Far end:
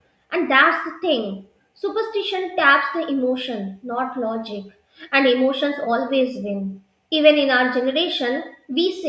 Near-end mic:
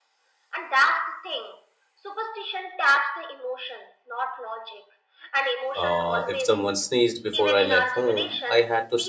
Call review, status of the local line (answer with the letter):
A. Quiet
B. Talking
B